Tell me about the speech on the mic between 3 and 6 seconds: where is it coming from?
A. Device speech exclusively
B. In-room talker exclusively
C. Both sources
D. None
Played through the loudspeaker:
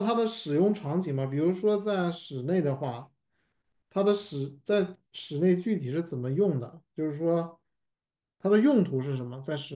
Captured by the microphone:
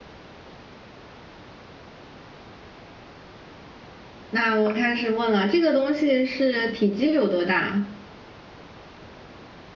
B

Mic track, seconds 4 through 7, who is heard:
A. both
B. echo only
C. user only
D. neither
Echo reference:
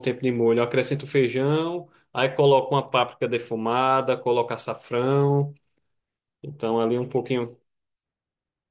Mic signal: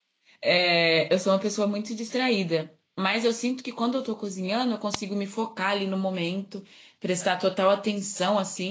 C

